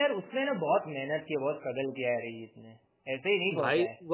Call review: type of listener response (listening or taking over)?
taking over